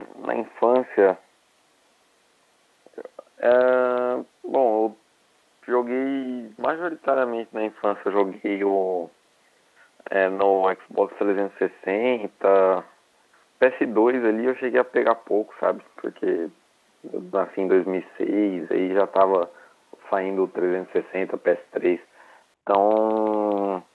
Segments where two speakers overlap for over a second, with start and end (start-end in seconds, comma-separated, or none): none